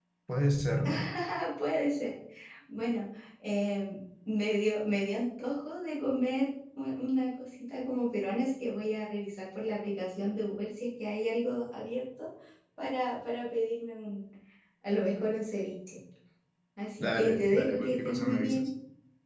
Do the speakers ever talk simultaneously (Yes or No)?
Yes